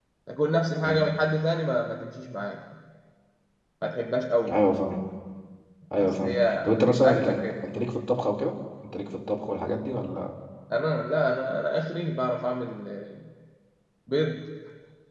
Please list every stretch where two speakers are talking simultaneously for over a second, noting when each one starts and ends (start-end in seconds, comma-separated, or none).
6.0-7.7